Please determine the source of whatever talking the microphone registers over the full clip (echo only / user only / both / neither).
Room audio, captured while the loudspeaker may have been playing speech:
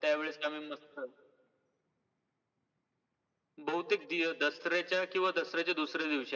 echo only